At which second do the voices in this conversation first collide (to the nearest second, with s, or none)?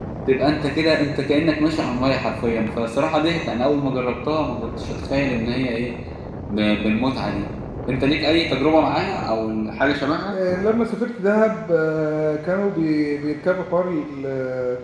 none